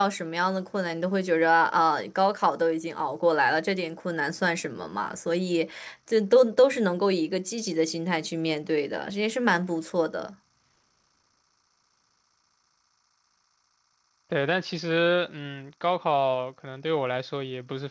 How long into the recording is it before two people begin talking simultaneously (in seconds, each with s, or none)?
none